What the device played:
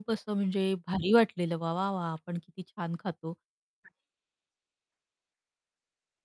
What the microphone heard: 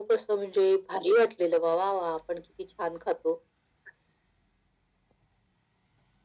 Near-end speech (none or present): none